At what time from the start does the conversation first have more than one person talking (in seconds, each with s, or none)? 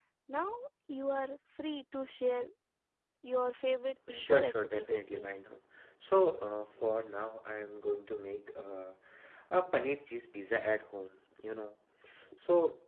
4.1 s